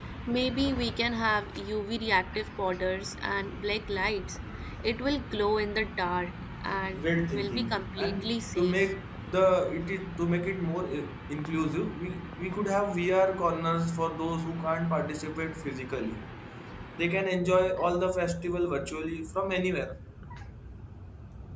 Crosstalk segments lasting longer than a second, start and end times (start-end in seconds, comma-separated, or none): 6.9-8.9